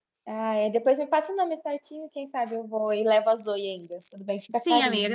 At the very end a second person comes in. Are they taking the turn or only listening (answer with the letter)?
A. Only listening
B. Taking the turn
B